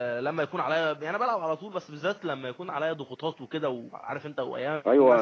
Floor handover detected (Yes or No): Yes